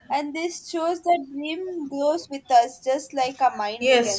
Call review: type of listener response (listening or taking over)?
taking over